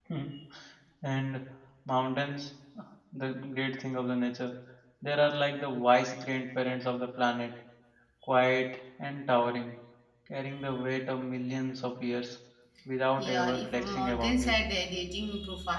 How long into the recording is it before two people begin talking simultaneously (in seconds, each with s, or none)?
13.2 s